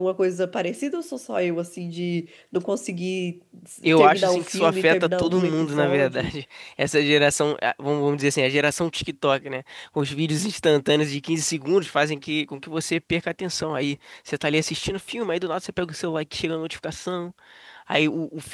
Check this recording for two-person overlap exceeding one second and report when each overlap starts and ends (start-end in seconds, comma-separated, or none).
3.9-6.3